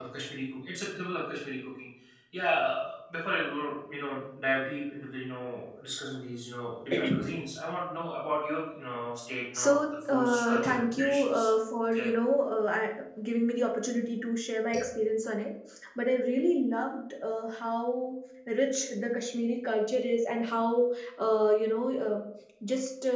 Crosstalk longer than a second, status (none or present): present